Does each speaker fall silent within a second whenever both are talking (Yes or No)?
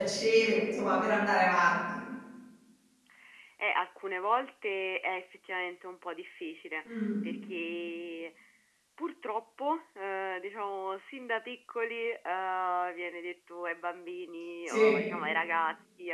Yes